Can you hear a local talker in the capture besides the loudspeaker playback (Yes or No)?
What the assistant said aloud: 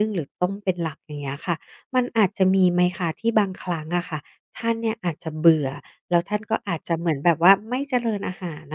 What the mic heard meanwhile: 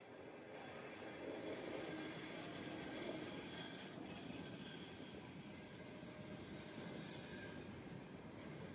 No